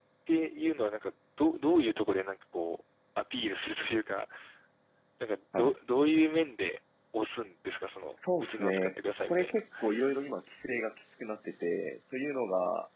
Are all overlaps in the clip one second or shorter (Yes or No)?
No